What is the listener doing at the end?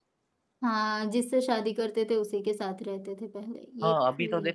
taking over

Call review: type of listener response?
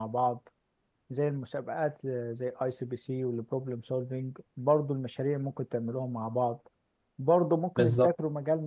listening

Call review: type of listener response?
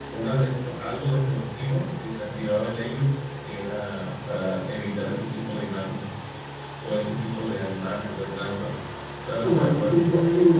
taking over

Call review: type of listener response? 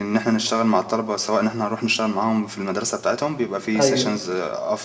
listening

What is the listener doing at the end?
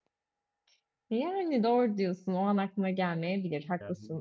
listening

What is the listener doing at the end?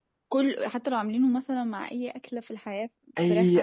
taking over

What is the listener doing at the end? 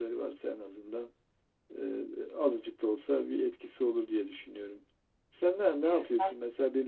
listening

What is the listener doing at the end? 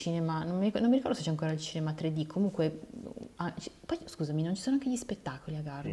taking over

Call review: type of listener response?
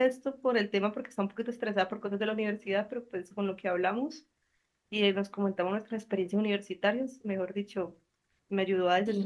taking over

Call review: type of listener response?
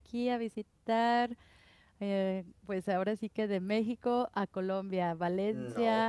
listening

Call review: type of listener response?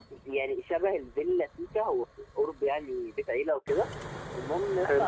listening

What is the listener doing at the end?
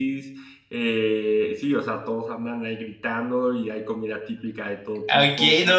taking over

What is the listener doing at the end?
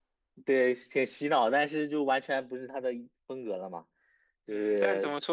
taking over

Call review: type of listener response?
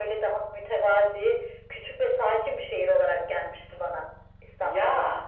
taking over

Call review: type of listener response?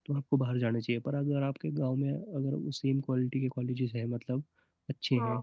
listening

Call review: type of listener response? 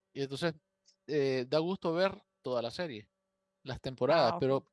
listening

